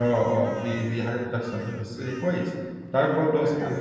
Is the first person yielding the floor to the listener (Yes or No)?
No